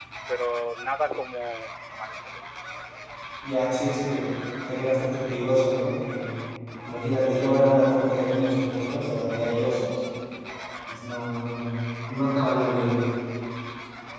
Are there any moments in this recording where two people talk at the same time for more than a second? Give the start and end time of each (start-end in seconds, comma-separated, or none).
none